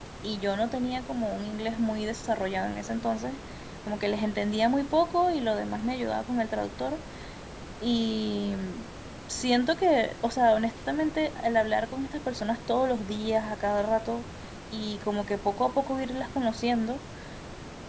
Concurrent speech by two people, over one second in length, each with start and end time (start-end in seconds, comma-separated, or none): none